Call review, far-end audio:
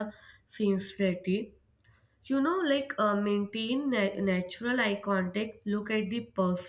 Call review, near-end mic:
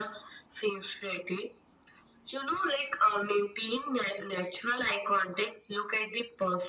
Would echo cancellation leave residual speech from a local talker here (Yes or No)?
No